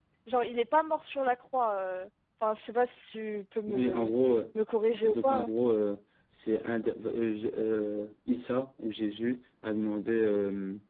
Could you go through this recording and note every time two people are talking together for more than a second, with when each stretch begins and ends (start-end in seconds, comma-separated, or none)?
none